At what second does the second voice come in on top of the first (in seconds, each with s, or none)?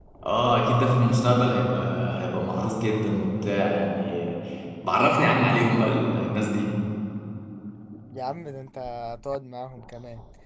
none